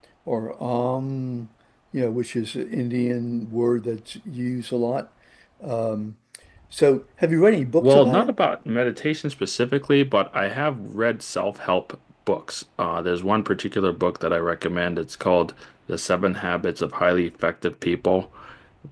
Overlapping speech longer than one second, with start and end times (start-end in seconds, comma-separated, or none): none